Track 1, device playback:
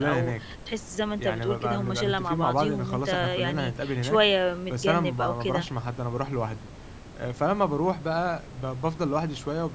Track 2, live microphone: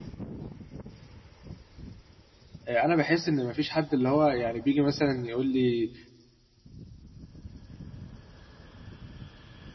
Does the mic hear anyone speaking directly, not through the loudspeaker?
Yes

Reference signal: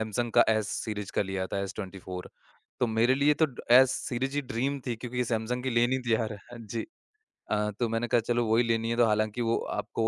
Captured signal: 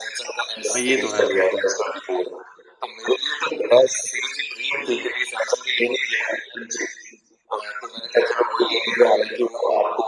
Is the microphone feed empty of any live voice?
No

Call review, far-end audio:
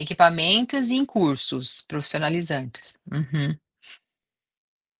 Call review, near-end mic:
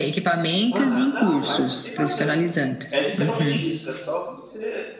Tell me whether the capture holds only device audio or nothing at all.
No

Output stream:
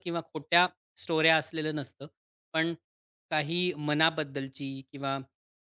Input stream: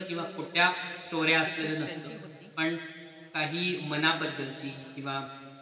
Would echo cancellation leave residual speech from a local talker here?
Yes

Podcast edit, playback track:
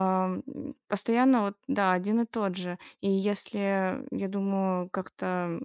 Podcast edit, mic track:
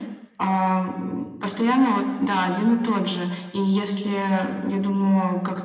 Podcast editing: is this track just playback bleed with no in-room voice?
Yes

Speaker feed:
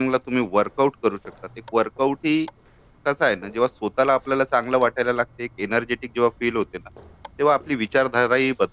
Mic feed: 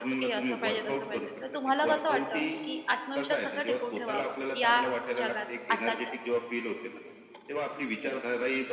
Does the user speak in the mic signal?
Yes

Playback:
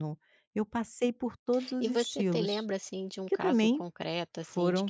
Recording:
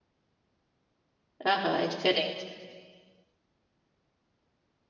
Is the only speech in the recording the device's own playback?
No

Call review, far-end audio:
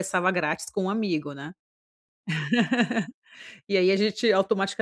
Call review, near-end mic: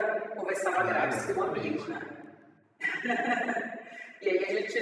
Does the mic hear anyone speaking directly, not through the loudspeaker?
Yes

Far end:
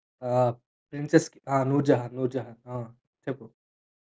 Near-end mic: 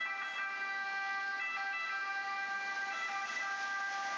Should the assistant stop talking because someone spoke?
No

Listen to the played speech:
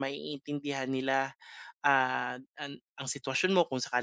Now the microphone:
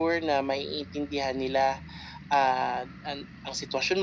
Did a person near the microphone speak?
No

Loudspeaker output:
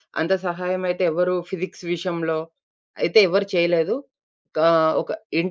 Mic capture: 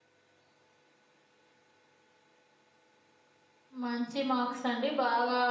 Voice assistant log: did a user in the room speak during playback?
Yes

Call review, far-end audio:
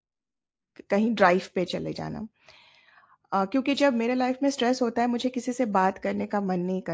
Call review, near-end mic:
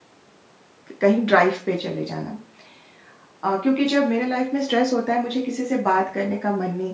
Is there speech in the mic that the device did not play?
No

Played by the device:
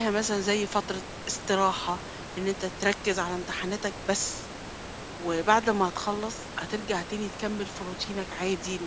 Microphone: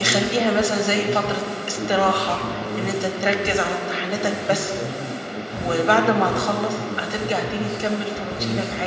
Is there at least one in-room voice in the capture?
Yes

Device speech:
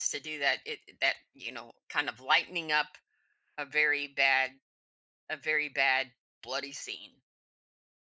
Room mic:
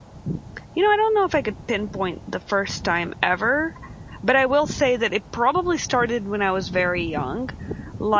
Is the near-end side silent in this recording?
No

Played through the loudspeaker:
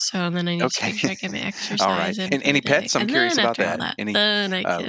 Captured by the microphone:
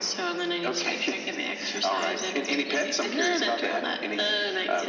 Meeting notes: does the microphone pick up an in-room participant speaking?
No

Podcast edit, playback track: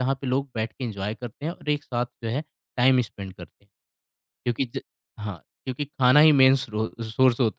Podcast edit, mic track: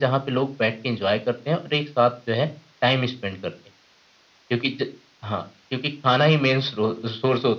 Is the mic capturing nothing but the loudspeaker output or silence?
Yes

